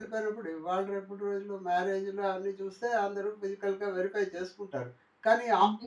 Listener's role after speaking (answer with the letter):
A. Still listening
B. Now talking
A